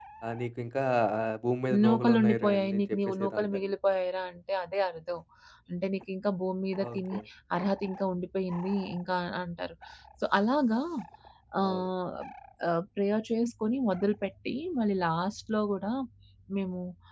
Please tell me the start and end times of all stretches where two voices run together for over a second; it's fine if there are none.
1.8-3.6

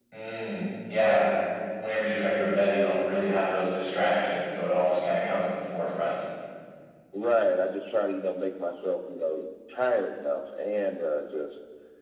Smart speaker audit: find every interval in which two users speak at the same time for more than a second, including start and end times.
none

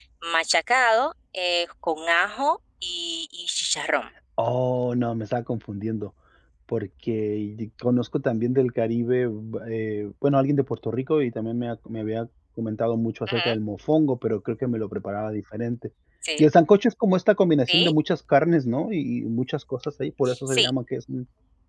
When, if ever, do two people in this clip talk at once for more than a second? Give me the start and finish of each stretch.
none

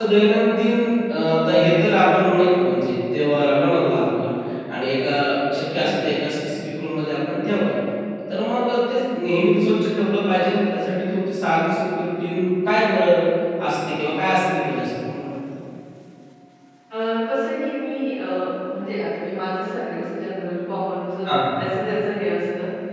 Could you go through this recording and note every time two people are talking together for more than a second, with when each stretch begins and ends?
none

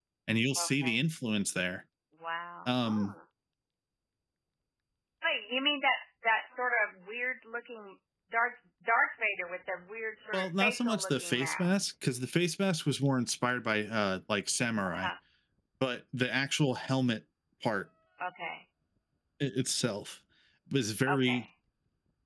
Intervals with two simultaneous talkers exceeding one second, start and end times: 10.3-11.8

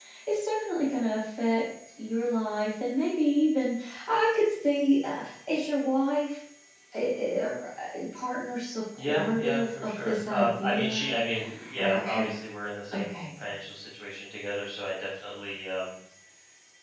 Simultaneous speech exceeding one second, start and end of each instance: 9.0-11.1

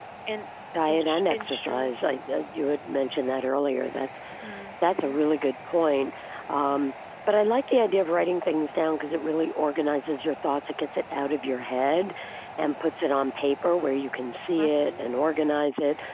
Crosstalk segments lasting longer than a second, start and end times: 0.9-2.1

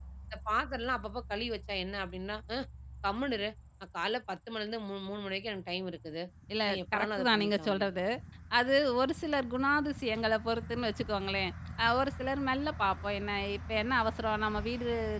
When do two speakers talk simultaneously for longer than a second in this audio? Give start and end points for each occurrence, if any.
6.7-7.9

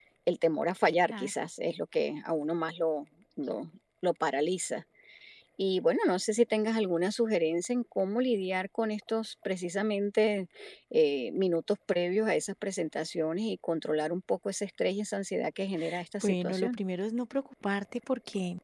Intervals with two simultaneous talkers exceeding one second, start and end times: none

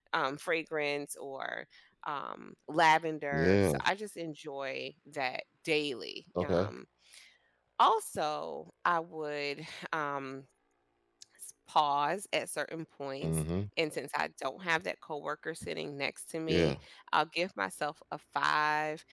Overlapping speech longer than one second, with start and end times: none

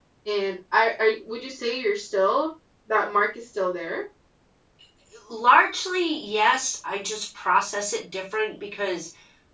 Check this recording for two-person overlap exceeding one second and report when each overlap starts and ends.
none

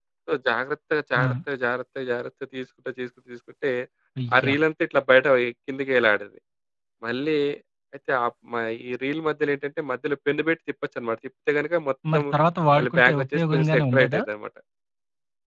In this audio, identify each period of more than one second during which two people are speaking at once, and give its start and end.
12.8-14.2

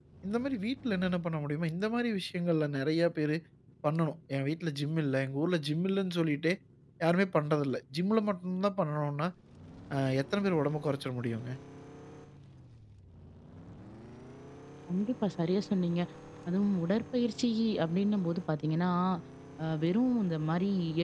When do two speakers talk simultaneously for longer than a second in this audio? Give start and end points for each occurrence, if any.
none

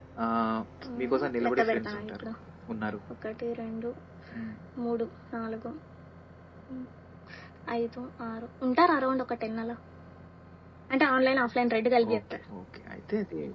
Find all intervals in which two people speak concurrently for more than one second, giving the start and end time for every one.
1.0-2.2

